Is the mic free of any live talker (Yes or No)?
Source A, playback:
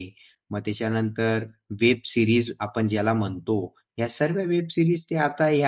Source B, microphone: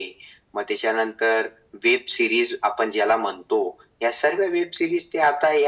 Yes